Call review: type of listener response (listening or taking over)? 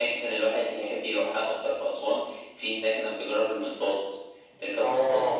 listening